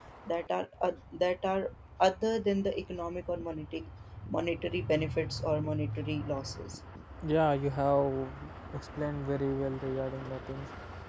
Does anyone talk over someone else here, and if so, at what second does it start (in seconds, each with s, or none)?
none